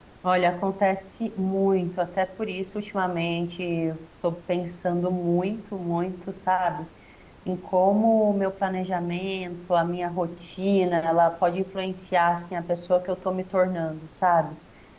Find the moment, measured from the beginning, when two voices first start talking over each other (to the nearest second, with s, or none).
none